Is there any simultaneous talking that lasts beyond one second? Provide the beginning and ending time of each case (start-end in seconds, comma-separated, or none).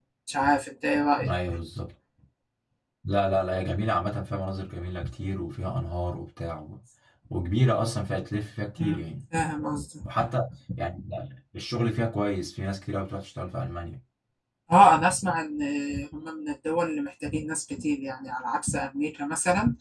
none